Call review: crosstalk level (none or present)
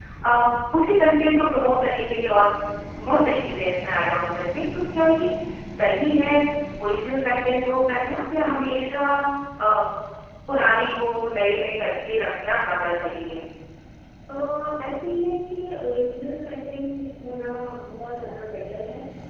none